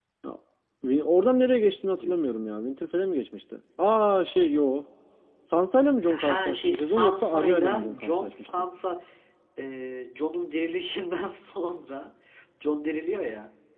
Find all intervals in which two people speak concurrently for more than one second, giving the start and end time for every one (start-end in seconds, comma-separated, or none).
6.1-8.7